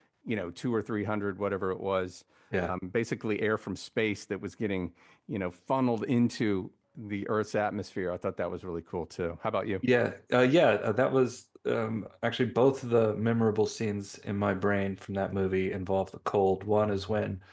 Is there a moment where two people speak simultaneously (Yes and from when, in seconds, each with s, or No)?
No